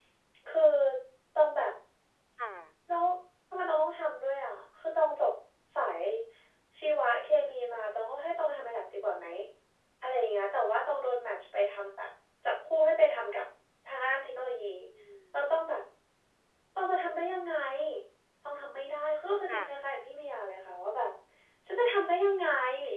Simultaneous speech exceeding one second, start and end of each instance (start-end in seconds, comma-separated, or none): none